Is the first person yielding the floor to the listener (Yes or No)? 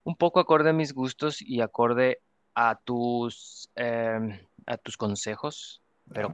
Yes